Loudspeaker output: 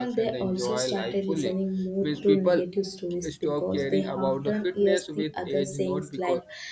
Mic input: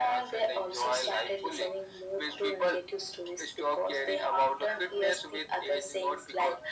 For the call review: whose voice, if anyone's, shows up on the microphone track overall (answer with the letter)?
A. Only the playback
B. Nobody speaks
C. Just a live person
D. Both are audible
A